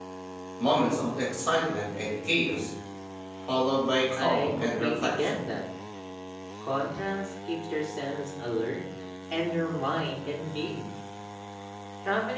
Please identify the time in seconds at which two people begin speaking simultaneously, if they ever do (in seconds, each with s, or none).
4.2 s